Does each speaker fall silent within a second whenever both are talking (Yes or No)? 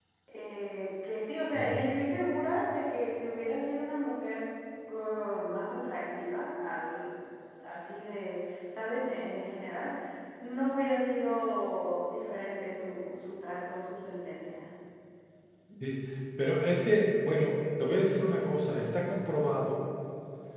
Yes